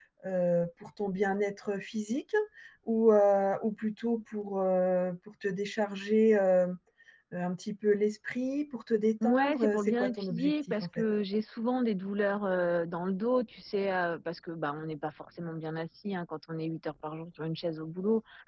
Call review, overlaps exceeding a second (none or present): present